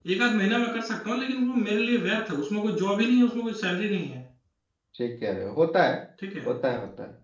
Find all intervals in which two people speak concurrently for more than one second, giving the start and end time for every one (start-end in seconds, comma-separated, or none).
none